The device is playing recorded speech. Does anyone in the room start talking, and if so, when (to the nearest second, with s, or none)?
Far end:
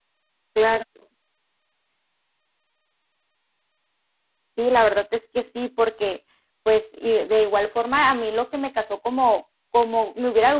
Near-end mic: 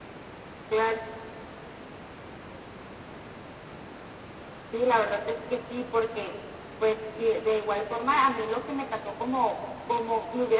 none